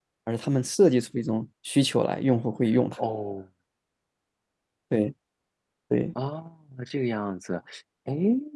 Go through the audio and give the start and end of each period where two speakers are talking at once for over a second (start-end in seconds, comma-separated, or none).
none